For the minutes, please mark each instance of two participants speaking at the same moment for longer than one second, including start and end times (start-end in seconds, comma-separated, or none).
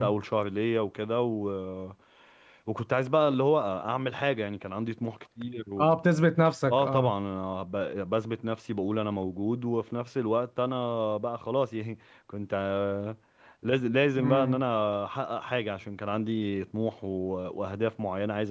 none